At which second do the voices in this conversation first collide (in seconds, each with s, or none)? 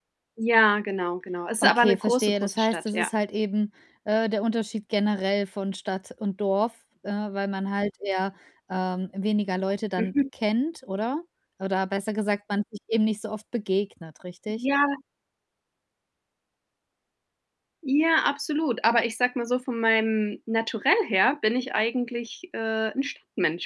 1.6 s